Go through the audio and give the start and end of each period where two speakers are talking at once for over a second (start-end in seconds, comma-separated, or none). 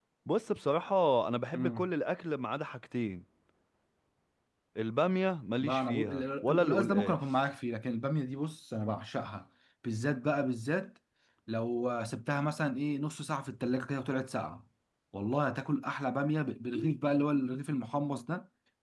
5.6-7.2